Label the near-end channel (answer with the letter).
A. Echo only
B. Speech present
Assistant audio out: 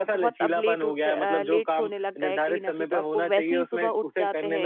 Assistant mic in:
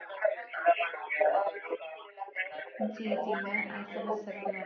B